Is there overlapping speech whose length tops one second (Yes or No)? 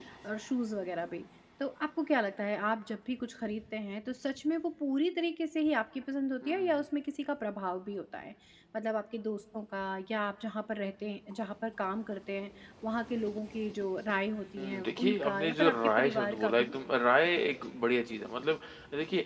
Yes